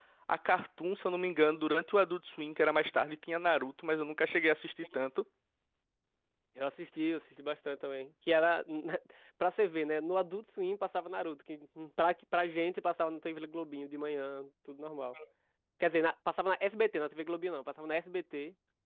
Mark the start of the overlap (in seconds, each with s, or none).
none